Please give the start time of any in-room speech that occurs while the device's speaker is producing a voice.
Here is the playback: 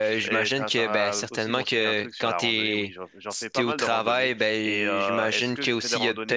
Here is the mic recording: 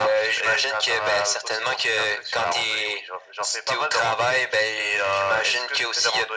none

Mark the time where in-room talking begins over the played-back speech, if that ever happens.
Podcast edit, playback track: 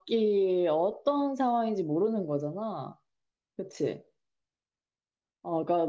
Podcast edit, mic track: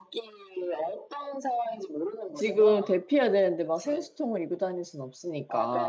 2.3 s

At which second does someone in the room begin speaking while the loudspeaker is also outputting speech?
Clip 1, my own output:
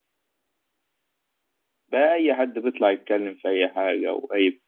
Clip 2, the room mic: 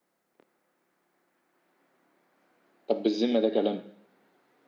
2.9 s

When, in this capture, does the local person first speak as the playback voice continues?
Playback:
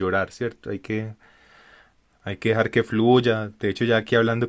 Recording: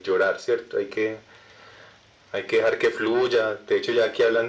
none

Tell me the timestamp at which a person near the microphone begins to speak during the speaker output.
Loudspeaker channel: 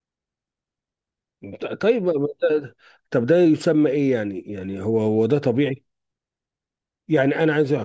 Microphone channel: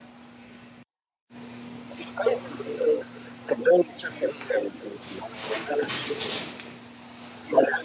none

